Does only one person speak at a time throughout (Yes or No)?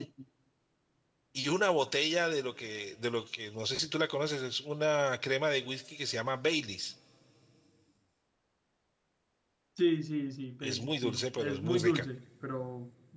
No